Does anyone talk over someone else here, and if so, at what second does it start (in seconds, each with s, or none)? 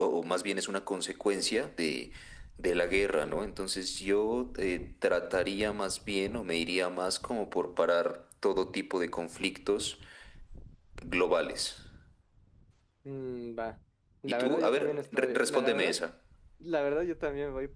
14.3 s